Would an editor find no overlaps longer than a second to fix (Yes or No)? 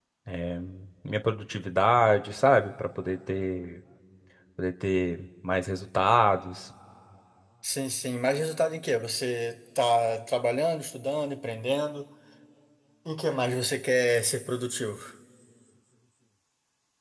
Yes